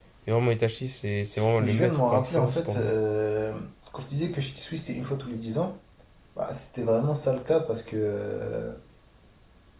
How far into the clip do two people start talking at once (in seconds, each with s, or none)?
1.6 s